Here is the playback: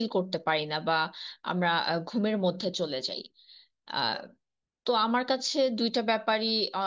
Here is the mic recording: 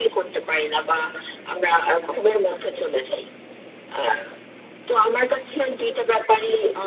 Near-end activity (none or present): none